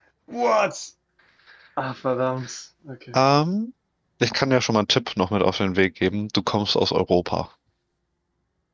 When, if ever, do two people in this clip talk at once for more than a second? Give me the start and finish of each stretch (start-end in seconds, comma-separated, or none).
none